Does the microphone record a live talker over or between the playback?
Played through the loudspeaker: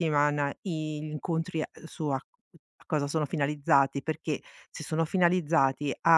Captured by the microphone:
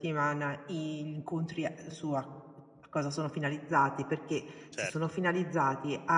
Yes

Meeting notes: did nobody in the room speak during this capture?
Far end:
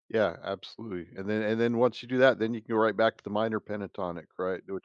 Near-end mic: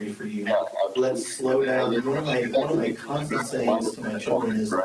No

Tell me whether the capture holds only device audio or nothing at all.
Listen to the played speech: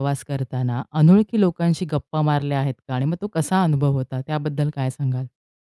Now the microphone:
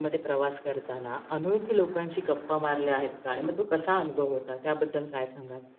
Yes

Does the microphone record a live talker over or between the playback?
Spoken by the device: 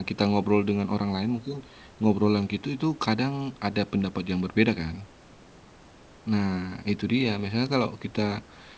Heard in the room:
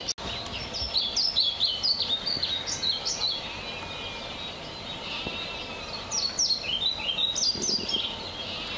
No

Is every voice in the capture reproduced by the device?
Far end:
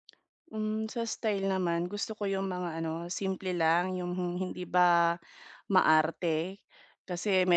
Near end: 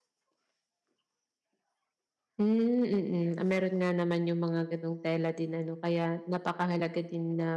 No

